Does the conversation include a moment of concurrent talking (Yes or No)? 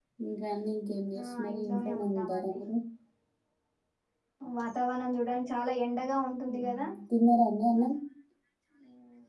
Yes